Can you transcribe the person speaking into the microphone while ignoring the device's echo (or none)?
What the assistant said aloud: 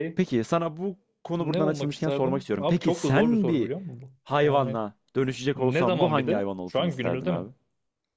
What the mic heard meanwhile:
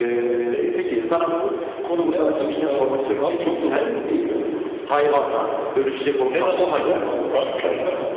none